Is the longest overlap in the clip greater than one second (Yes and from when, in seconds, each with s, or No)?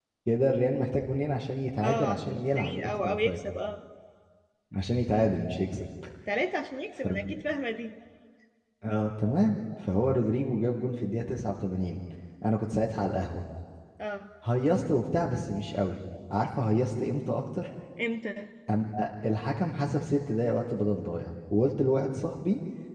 Yes, from 1.8 s